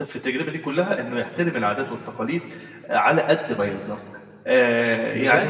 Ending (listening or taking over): taking over